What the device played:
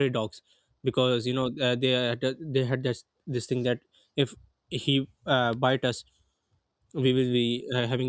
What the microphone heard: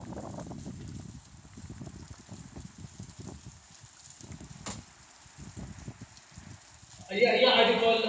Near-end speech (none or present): present